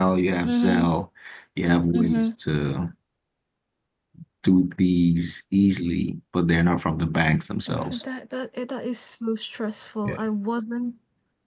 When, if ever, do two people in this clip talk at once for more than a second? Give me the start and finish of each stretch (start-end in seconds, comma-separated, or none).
none